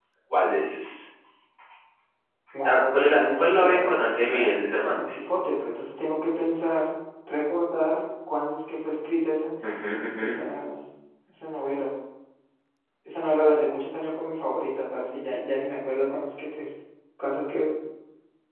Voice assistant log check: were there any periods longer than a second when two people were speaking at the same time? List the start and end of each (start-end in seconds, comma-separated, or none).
2.6-5.3